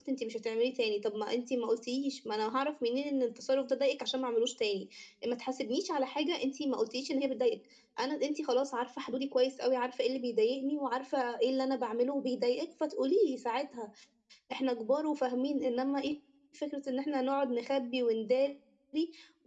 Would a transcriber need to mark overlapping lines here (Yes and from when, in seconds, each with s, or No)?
No